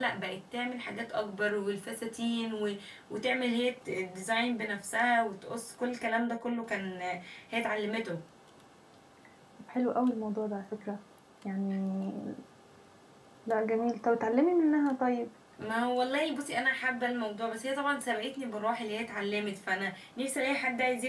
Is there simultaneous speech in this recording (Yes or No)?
No